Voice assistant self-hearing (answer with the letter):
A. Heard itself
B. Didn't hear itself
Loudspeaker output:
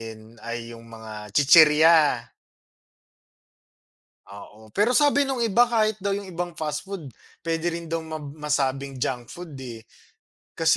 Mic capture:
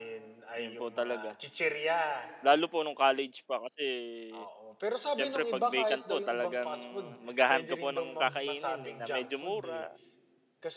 A